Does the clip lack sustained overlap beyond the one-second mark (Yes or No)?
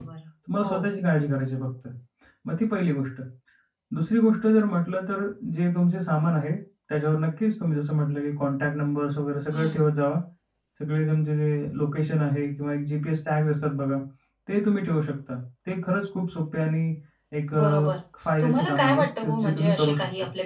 No